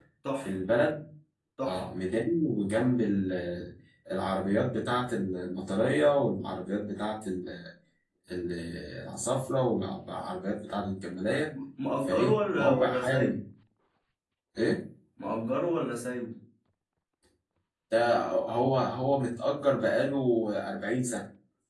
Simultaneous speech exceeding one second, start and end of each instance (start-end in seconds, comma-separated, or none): 12.0-13.4